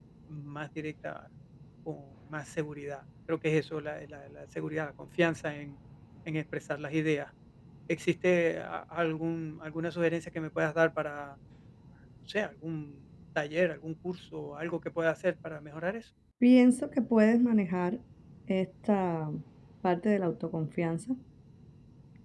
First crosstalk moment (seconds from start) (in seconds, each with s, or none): none